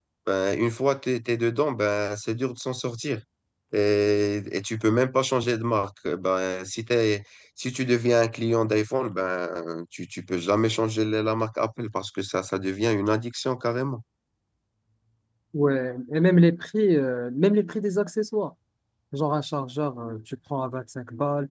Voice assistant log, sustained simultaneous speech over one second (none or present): none